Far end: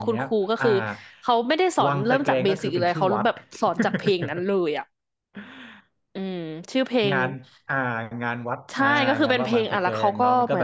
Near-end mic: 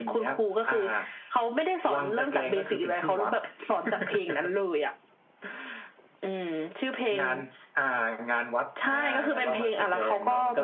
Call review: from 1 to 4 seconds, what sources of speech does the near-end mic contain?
echo only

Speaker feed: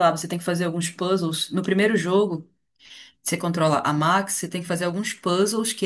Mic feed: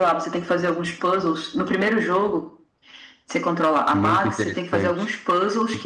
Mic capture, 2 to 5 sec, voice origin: both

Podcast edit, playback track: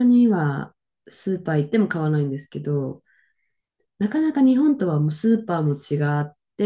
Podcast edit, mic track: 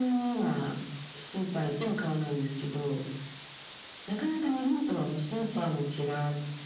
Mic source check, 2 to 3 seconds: echo only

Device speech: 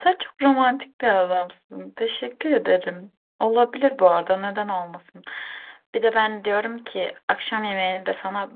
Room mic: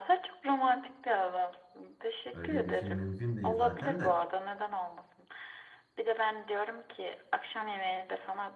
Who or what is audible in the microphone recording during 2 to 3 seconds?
both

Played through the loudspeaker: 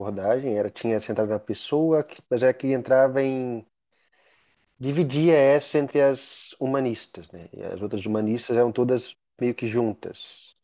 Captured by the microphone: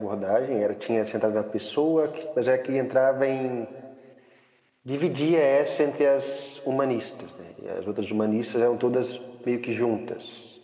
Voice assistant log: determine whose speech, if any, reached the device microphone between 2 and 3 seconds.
echo only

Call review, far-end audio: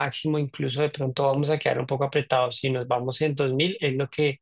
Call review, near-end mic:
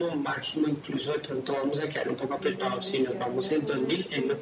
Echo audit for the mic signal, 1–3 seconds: both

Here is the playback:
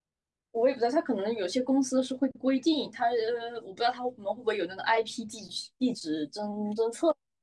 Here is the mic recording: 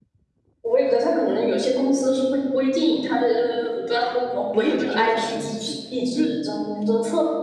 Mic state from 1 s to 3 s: echo only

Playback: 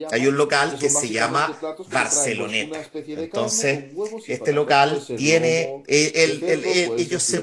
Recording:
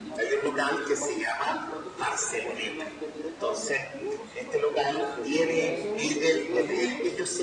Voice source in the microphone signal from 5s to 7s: both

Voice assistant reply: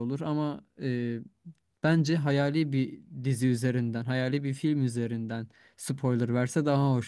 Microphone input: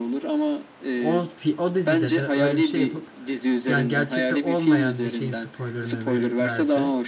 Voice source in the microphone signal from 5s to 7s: both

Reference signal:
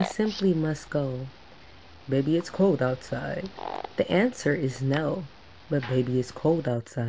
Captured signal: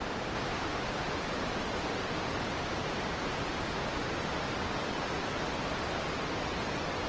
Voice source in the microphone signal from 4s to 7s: neither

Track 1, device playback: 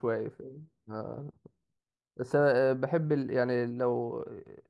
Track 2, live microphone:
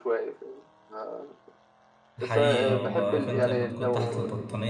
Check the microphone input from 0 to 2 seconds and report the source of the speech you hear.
echo only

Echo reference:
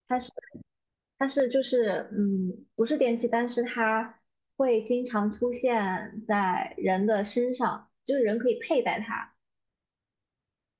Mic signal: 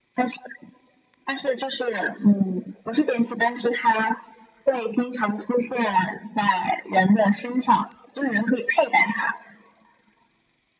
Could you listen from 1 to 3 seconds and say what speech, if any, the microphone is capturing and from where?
echo only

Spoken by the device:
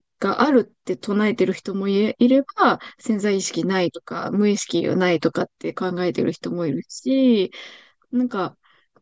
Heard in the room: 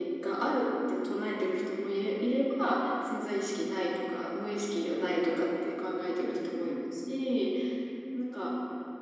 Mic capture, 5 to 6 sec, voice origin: echo only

